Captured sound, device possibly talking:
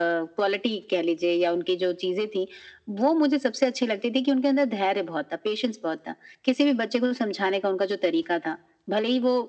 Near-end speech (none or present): none